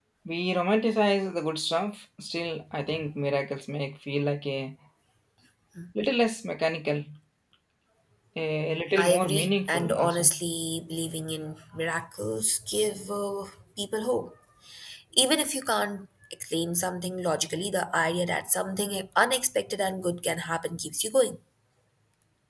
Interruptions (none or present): present